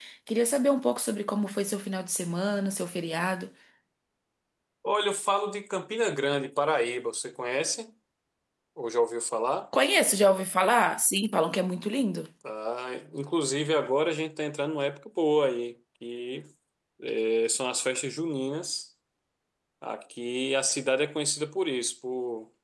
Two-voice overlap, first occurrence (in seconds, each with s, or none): none